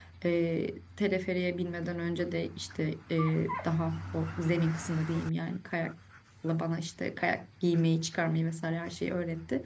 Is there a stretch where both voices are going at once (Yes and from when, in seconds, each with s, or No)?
No